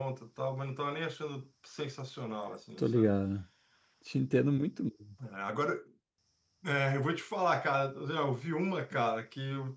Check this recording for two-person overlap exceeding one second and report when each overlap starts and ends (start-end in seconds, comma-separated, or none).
none